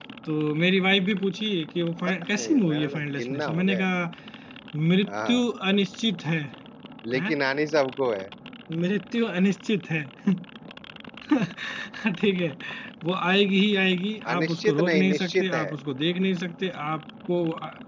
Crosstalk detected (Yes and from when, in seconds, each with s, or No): Yes, from 2.2 s